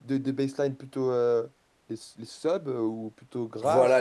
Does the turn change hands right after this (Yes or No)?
Yes